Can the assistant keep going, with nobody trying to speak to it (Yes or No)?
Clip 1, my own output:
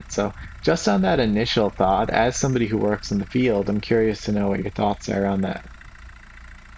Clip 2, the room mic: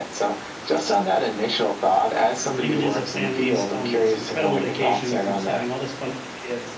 No